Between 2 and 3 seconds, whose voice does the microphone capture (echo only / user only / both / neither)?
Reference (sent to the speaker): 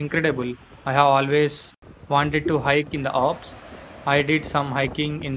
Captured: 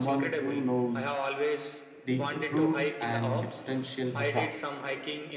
both